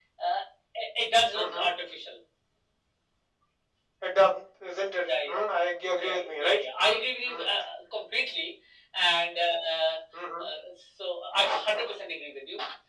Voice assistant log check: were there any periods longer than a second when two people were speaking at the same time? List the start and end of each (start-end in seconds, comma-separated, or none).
6.0-7.5